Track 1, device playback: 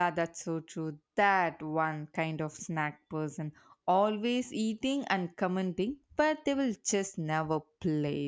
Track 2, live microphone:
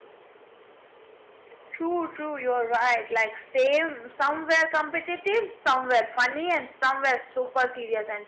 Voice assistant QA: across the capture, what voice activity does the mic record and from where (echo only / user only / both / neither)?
user only